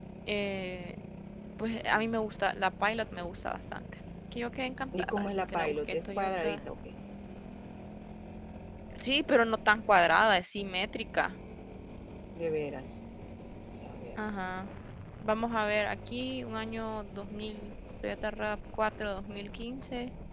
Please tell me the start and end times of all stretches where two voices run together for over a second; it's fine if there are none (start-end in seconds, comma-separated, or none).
5.0-6.6